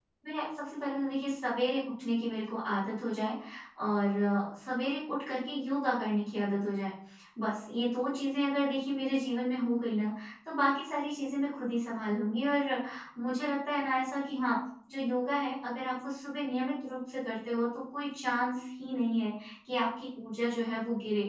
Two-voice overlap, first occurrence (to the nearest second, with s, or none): none